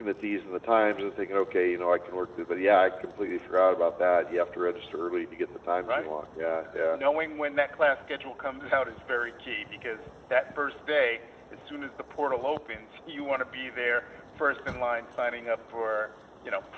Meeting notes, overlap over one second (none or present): none